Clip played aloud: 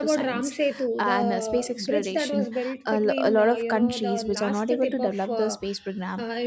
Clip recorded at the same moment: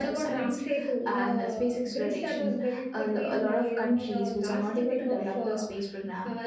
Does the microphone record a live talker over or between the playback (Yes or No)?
No